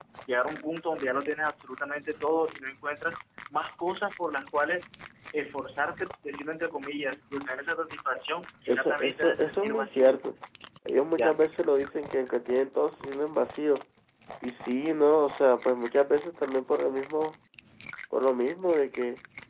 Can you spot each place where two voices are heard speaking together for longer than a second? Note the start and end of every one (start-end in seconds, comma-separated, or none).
8.7-10.2